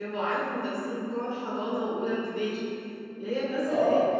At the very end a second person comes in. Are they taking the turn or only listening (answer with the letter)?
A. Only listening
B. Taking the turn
B